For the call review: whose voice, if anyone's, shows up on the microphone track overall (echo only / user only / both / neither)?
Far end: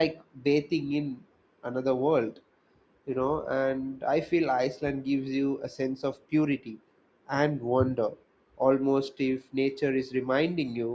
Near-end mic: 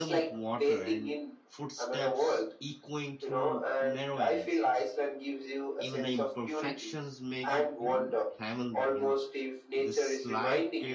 both